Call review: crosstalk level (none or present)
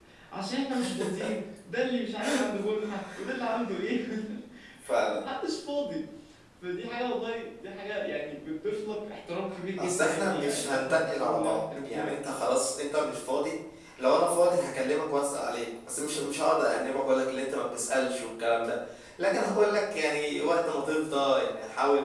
present